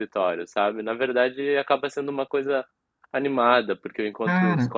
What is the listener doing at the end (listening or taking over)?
listening